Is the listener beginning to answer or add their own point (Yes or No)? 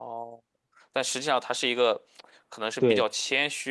No